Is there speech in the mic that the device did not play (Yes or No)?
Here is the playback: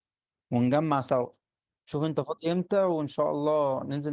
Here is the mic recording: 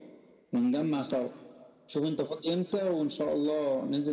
No